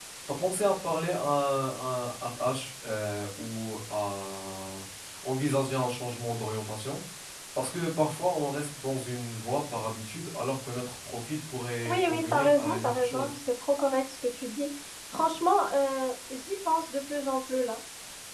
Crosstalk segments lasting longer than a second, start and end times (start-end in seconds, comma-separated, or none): 11.8-13.3